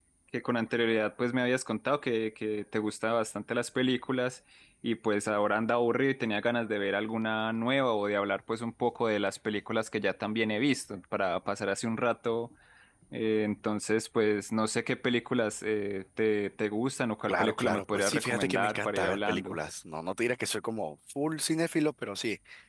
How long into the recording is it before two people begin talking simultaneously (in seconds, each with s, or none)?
17.3 s